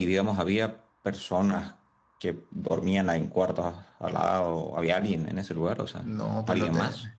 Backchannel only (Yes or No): No